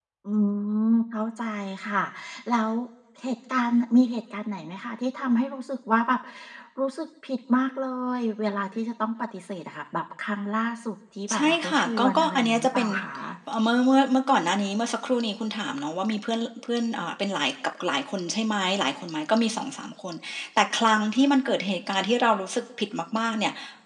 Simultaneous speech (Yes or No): Yes